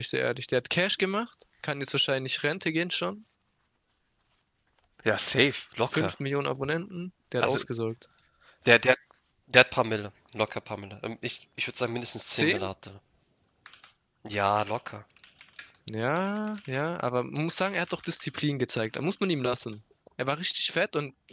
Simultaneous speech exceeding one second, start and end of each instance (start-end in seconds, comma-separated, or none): none